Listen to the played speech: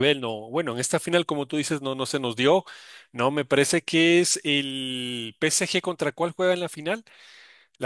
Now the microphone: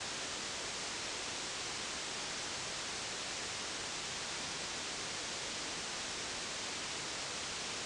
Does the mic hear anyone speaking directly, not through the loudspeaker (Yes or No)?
No